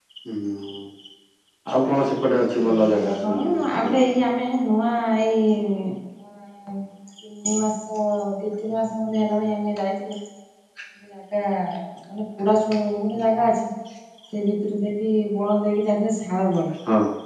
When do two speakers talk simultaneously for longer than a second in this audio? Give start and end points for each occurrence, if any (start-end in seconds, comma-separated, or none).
2.6-4.2